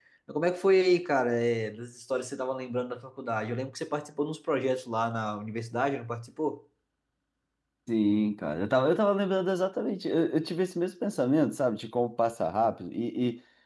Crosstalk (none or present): none